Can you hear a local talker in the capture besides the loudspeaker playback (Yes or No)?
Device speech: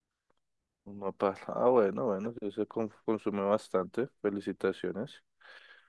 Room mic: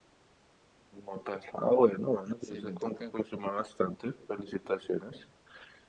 Yes